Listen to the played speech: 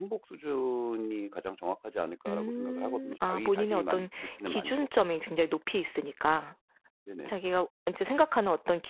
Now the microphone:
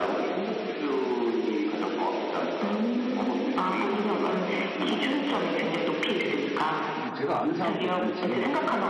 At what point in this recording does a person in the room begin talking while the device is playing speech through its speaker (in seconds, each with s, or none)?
5.5 s